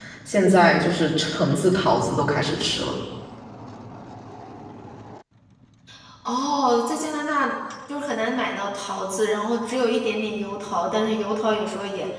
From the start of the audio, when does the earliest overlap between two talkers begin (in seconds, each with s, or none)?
none